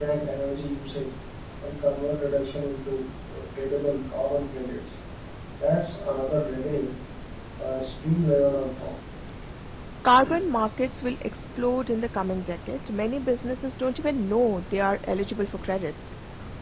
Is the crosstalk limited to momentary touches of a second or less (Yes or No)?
Yes